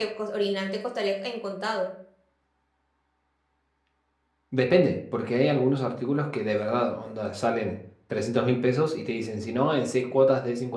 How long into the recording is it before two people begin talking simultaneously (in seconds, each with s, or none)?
none